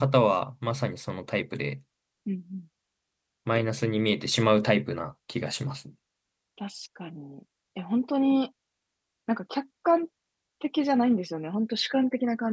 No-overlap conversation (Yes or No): Yes